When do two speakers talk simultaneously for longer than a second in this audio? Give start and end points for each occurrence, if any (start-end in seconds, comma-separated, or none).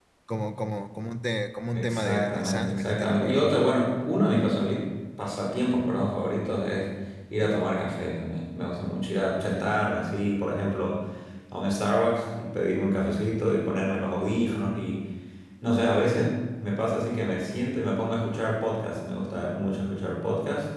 1.7-3.5